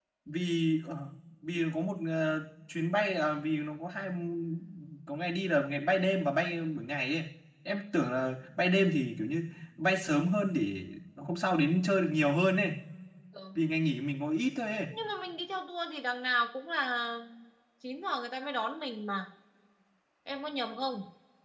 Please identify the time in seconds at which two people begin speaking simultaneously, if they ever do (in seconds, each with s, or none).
none